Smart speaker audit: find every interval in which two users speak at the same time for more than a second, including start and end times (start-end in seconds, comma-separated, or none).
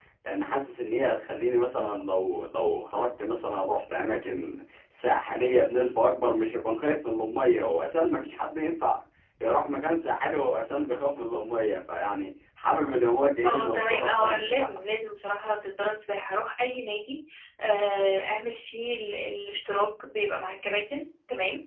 13.4-14.7